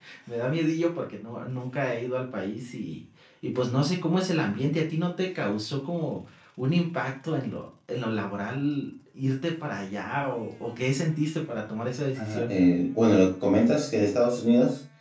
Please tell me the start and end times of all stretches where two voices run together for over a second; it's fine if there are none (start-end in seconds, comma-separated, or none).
none